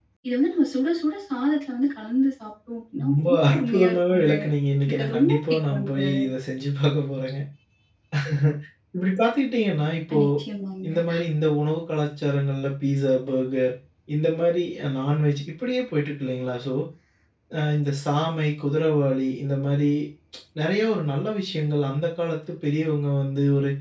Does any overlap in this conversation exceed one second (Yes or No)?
Yes